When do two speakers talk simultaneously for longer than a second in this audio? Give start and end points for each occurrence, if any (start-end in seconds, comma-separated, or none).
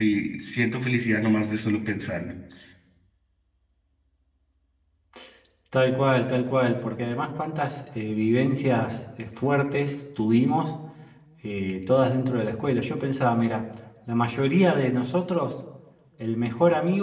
none